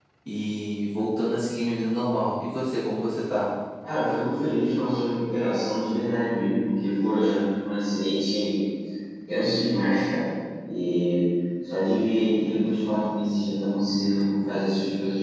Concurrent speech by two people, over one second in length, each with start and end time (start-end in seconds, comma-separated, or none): none